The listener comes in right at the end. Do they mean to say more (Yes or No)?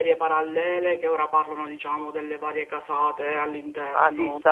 Yes